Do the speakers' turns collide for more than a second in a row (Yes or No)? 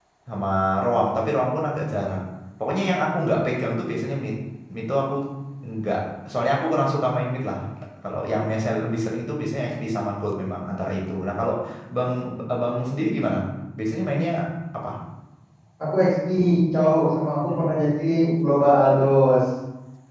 No